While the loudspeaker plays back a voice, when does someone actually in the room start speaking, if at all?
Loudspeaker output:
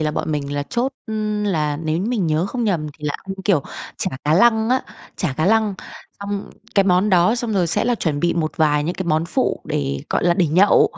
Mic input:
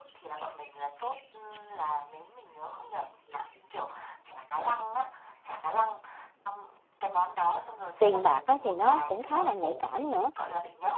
8.0 s

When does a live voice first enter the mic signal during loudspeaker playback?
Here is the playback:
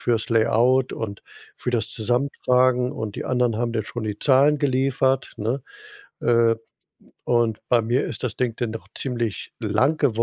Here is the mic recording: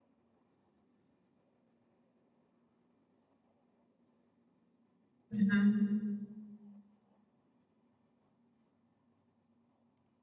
5.3 s

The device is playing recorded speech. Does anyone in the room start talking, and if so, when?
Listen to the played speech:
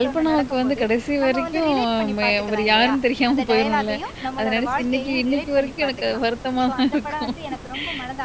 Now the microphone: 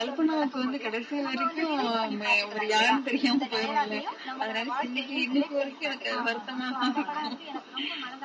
6.2 s

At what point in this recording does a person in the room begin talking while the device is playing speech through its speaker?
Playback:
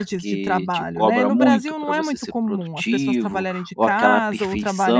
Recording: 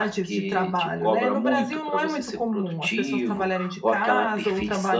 none

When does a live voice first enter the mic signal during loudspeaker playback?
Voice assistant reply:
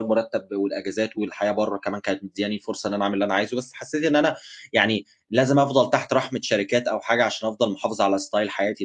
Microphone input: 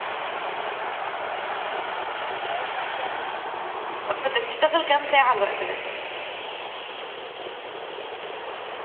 4.1 s

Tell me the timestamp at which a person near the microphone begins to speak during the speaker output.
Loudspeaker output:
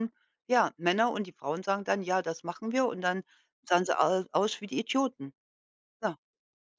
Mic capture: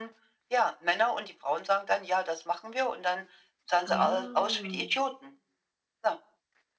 3.8 s

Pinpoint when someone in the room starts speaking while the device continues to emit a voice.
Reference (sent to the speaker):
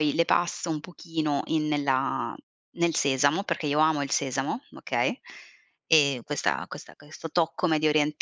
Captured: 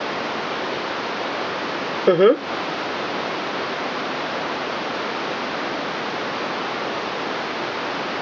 2.1 s

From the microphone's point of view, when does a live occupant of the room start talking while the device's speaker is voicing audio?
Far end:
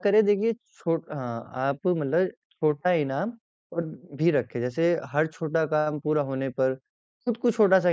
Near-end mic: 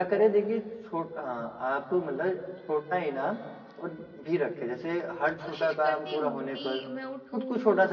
5.4 s

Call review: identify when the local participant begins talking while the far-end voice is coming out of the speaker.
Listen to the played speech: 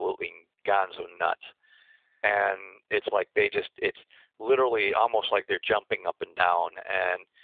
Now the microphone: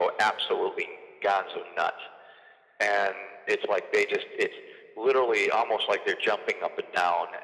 none

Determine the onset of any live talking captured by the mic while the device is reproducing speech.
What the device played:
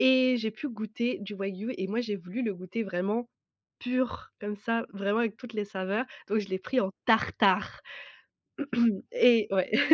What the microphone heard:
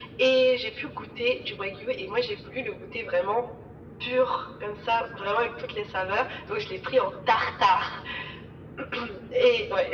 none

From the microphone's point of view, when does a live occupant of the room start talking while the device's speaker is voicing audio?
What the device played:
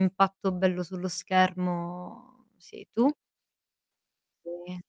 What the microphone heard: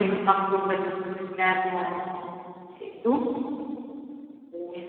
none

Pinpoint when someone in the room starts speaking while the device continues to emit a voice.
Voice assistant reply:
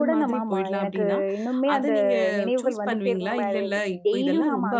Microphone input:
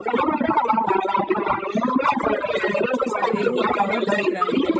3.2 s

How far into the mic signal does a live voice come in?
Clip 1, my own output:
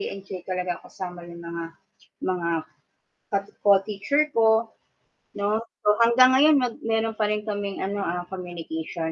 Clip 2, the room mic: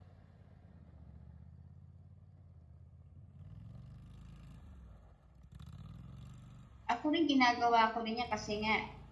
6.9 s

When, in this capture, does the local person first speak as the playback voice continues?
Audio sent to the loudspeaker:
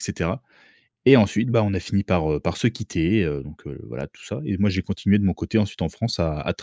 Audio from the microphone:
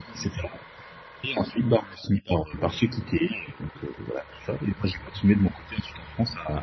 none

